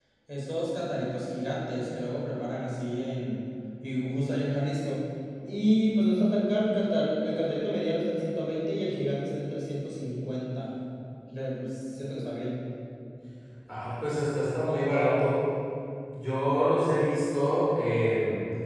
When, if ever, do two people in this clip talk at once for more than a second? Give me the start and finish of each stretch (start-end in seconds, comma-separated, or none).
none